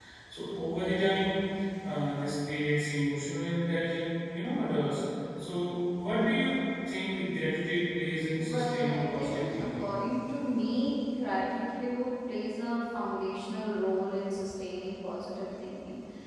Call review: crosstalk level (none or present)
present